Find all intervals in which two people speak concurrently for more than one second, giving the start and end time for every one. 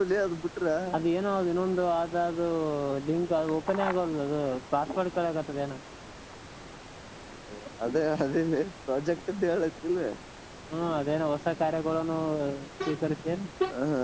none

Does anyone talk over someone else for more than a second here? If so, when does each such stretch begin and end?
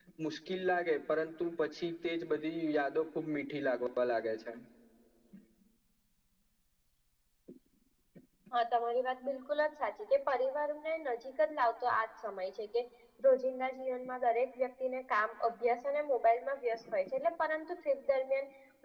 none

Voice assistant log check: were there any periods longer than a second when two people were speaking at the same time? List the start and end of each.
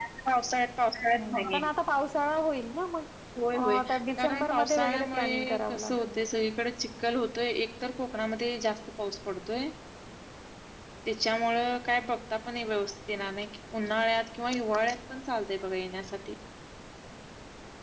4.2-6.3

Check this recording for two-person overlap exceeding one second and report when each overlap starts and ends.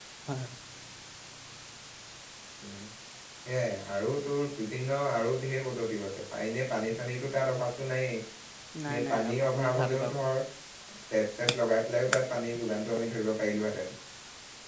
8.9-10.1

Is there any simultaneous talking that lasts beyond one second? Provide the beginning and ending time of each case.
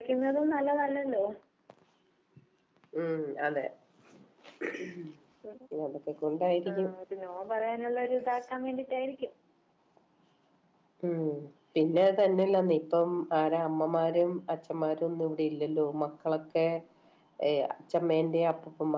none

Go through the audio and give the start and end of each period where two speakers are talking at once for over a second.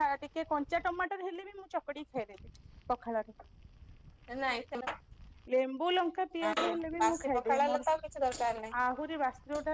6.5-7.8

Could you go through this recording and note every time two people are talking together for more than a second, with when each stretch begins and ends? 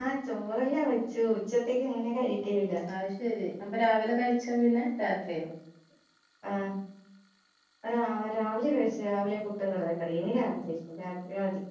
none

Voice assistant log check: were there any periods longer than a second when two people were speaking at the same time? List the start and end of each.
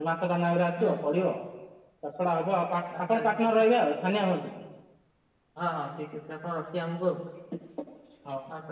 none

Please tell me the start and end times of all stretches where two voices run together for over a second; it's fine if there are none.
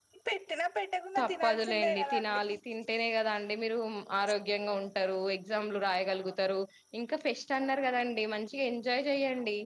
1.2-2.4

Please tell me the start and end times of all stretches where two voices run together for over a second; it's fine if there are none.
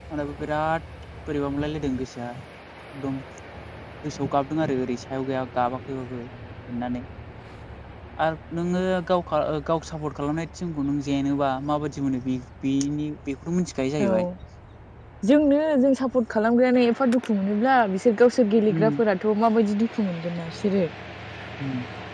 none

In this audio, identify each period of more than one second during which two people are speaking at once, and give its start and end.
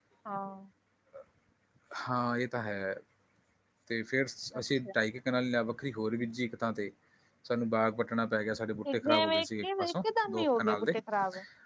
8.9-10.9

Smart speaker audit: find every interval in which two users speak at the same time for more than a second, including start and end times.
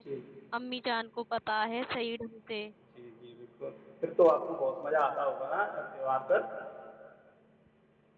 none

